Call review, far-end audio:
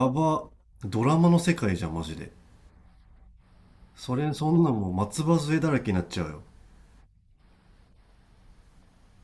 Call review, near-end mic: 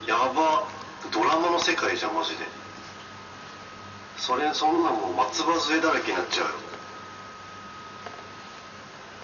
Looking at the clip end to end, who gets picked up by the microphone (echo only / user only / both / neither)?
echo only